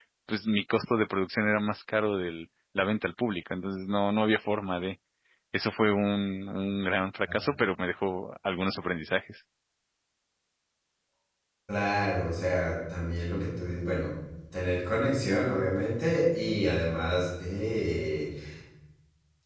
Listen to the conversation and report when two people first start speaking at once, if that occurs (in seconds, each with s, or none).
none